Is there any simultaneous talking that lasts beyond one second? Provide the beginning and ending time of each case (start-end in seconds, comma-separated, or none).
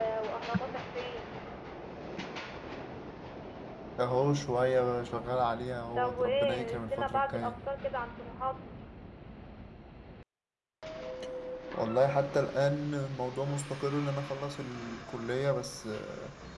6.0-7.6